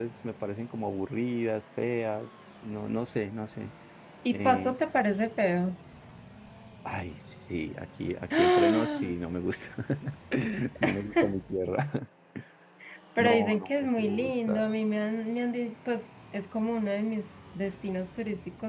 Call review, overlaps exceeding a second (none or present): present